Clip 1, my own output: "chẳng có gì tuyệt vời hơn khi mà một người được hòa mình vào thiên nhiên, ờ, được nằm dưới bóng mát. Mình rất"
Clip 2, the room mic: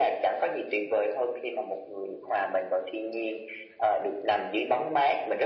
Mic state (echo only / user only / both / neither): echo only